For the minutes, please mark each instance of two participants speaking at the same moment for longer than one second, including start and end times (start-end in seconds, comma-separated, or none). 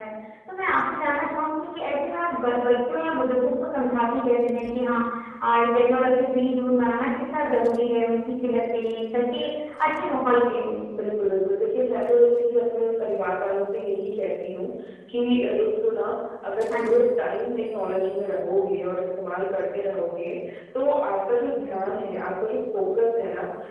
none